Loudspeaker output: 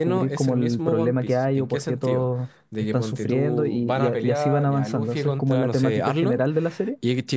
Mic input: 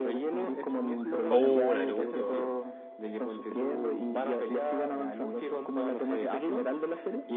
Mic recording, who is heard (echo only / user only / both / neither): both